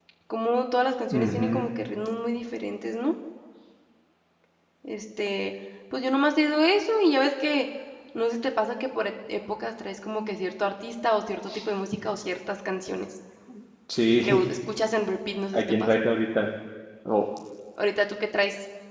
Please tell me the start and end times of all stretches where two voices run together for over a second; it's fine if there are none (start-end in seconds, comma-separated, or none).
none